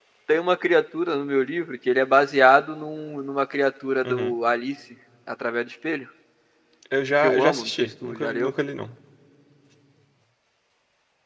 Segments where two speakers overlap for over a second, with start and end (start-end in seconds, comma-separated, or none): 7.2-8.5